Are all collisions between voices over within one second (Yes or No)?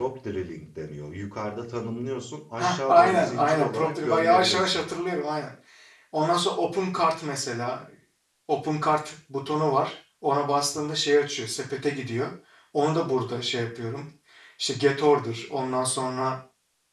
No